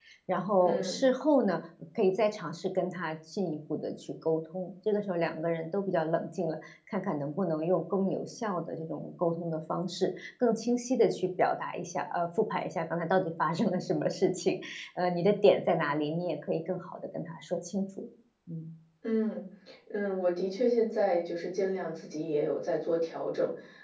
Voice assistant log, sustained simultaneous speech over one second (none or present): none